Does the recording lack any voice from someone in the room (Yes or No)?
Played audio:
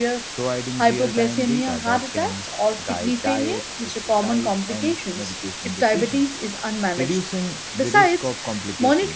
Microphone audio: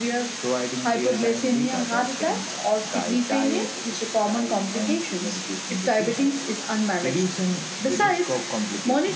Yes